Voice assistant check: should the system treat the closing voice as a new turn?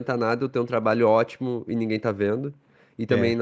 No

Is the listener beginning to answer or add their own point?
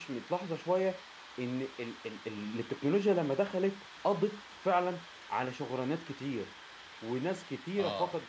No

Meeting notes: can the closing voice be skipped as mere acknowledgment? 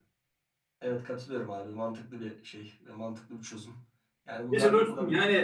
No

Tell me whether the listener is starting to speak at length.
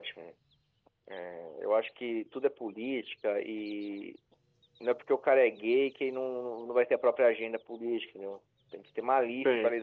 No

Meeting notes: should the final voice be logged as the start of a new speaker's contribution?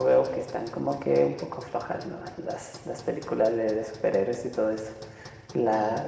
No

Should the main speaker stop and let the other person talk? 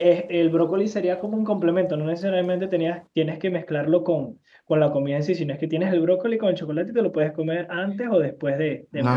Yes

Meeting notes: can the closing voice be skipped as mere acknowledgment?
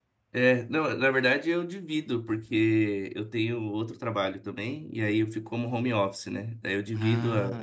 Yes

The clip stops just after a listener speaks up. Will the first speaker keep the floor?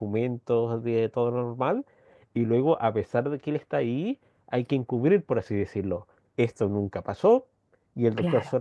Yes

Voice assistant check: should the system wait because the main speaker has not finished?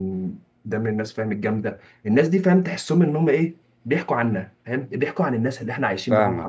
No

